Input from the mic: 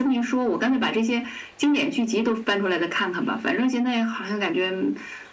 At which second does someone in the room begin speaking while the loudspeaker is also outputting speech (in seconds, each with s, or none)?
none